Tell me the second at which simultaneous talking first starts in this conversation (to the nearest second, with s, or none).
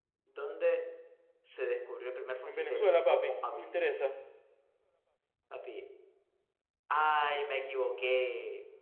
2 s